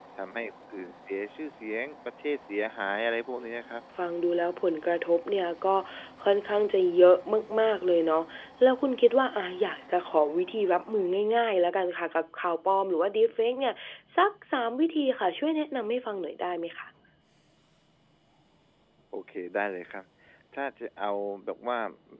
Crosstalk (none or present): none